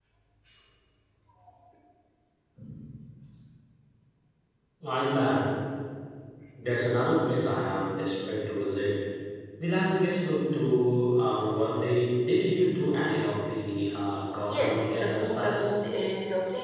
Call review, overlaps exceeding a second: present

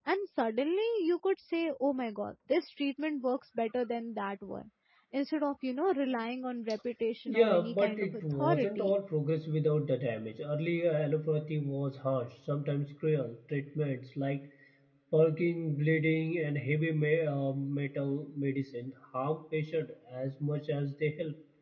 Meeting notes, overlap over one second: present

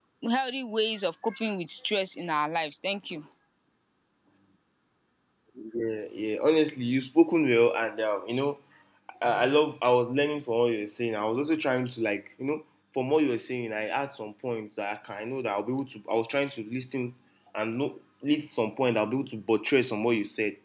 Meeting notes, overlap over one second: none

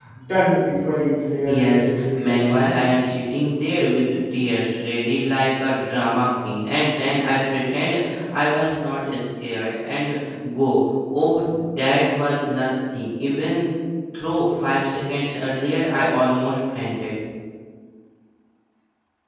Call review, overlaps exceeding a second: present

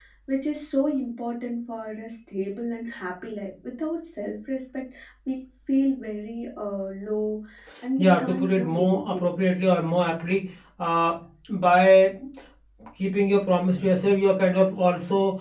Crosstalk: present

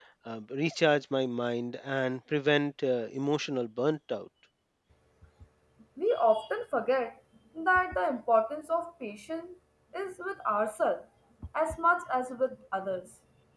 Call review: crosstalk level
none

